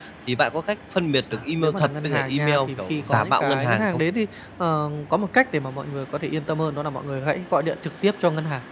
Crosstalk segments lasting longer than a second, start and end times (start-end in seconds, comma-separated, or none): 1.3-4.0